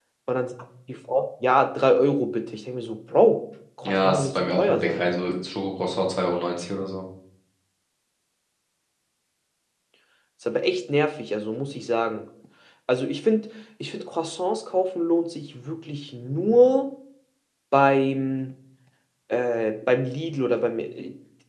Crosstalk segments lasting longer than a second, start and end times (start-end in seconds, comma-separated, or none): 3.9-5.0